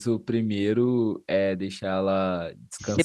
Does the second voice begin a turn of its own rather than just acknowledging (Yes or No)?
Yes